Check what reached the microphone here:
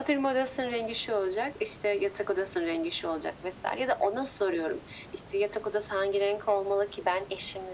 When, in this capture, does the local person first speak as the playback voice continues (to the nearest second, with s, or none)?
none